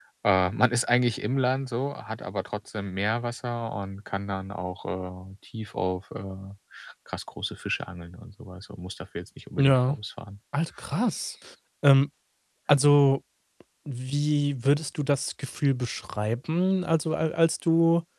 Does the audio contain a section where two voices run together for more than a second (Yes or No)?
No